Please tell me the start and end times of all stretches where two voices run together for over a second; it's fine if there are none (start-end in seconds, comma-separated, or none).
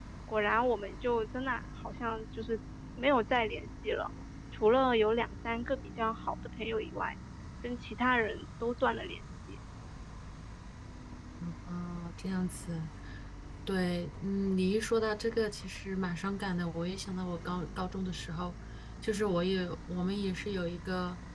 none